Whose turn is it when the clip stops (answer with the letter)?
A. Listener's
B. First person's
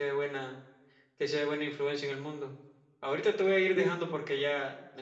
B